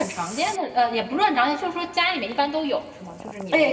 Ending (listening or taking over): taking over